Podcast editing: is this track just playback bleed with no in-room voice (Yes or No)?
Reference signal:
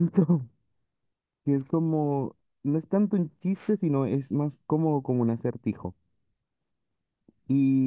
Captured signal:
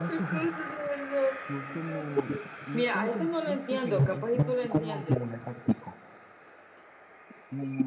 No